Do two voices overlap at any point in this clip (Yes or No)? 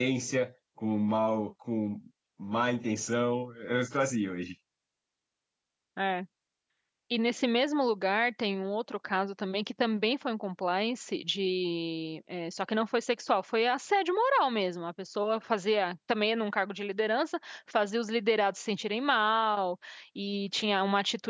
No